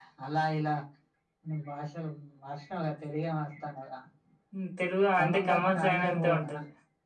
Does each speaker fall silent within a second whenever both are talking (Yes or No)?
No